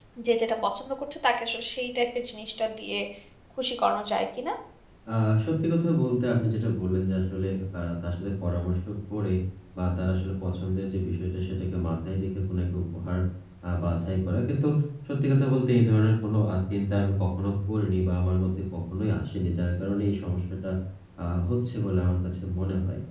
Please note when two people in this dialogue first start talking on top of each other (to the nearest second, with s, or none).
none